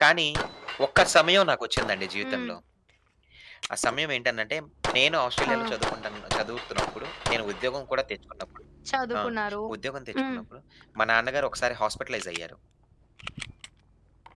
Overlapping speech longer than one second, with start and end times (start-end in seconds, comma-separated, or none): none